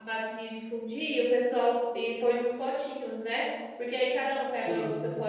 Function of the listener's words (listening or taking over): listening